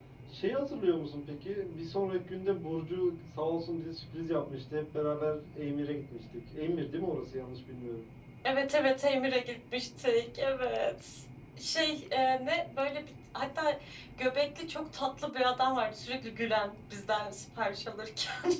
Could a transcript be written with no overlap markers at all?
Yes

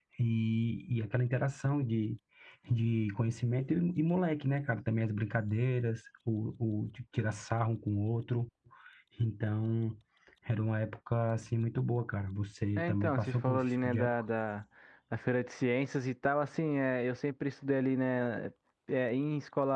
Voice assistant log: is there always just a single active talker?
No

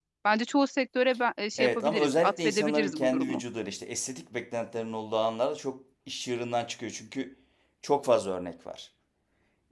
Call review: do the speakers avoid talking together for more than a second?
No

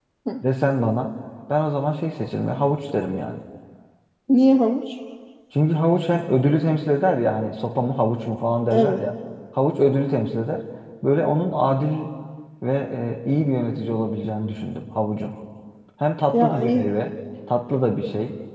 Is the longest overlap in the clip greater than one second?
No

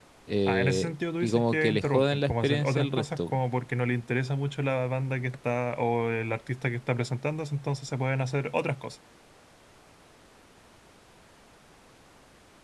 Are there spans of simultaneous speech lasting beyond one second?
Yes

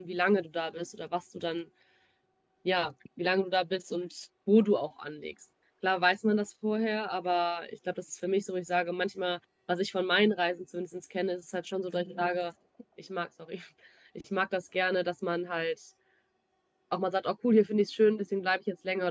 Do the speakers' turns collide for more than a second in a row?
No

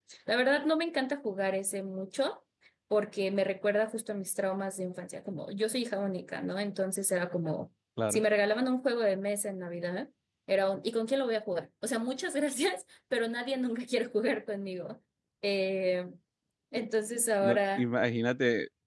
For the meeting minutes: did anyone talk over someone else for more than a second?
No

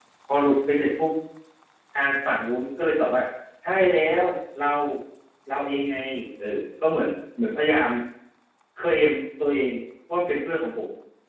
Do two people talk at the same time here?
No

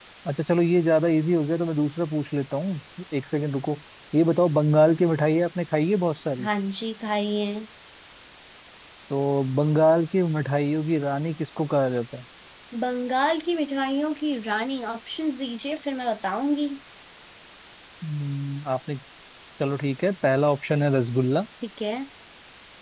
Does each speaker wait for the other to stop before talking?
Yes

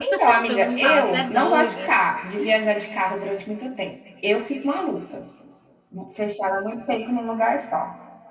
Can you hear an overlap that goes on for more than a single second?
Yes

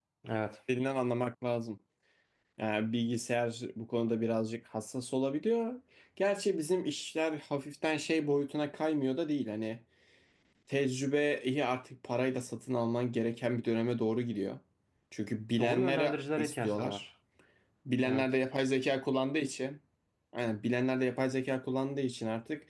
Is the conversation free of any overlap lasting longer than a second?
No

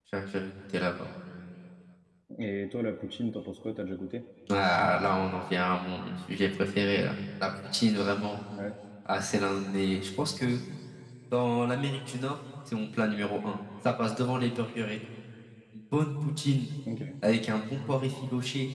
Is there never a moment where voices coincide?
Yes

